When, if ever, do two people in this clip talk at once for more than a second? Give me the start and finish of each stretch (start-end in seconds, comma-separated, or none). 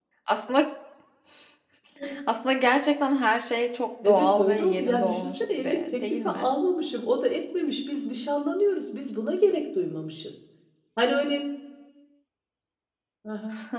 4.0-6.5